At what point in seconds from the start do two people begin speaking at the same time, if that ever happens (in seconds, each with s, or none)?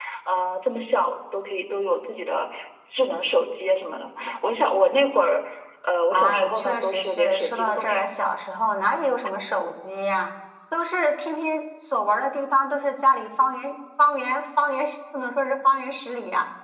6.1 s